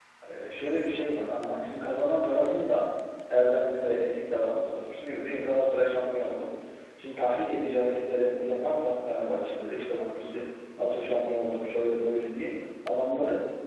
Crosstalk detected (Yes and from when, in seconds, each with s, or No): No